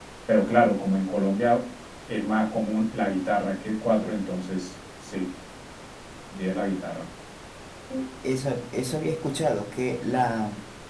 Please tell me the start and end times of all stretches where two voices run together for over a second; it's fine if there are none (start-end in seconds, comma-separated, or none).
none